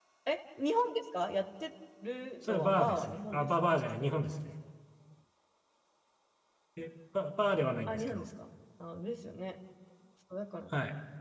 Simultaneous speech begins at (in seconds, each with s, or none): 2.4 s